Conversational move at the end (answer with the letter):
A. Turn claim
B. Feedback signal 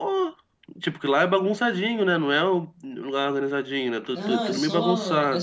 A